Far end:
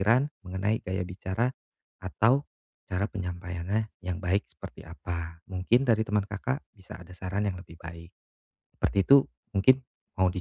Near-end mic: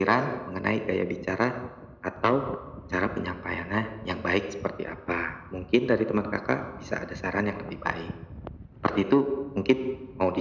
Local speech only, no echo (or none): none